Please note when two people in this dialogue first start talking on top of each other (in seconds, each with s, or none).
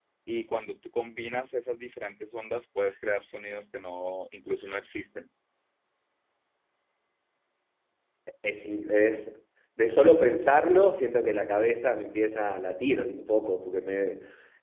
none